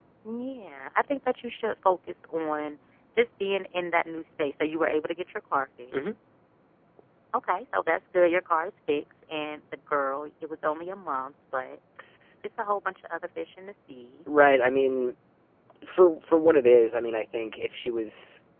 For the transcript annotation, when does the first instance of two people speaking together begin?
none

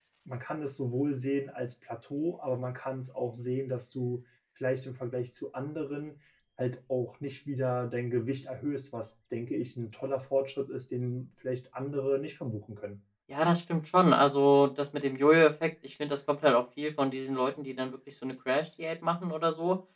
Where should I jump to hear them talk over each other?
none

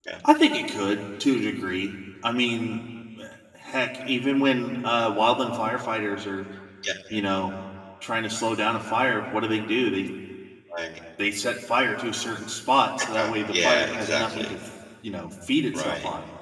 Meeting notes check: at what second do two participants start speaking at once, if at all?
13.1 s

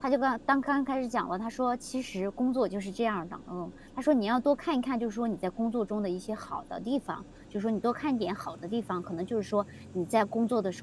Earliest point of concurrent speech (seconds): none

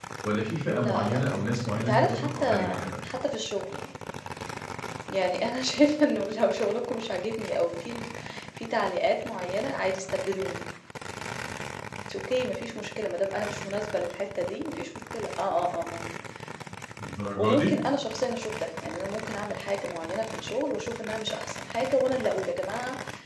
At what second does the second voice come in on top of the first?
0.7 s

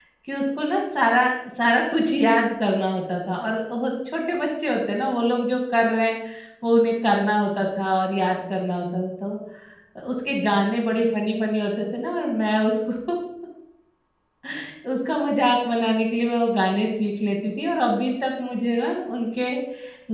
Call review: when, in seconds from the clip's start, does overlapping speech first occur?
none

